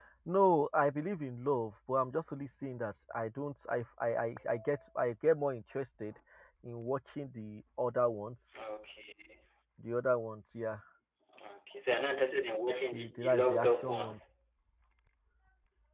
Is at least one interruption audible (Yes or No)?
Yes